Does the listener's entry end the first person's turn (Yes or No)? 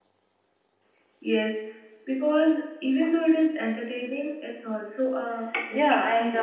Yes